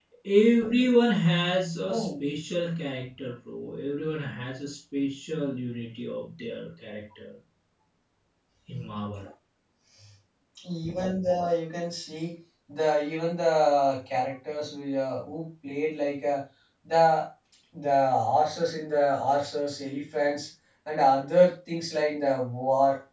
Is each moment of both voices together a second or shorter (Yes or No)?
Yes